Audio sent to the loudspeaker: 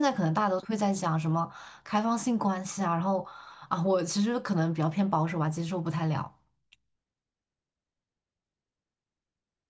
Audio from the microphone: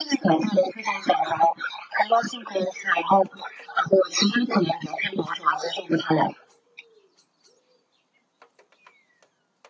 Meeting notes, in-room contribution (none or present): none